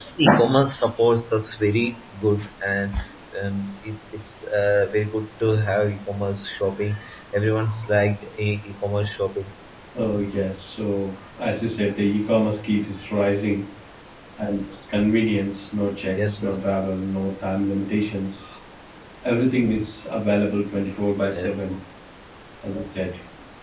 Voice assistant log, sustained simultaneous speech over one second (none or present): none